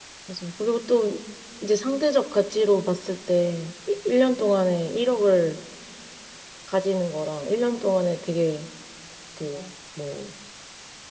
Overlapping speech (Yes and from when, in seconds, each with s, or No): No